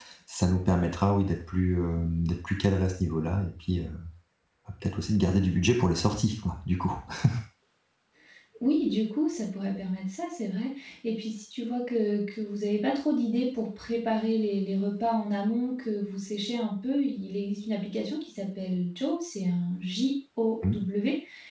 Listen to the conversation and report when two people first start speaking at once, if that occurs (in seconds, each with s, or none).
none